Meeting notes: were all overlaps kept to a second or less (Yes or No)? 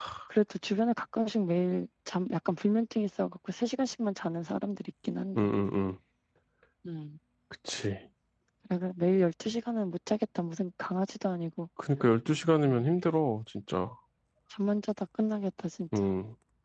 Yes